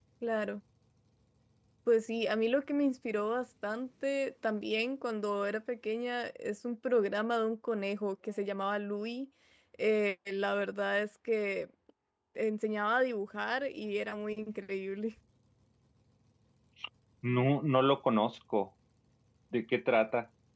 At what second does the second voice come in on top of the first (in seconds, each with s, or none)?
none